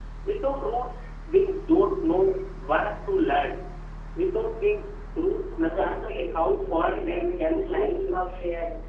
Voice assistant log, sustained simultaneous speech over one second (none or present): present